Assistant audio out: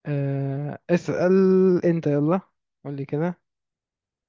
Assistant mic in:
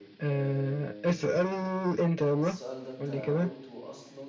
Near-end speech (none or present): present